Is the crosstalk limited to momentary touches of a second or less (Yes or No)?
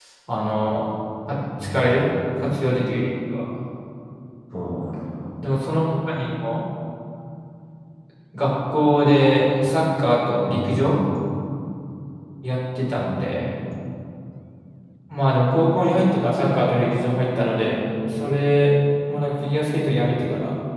Yes